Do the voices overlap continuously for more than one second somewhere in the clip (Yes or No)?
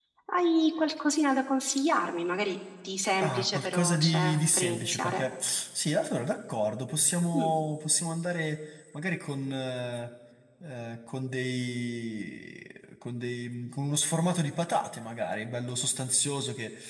Yes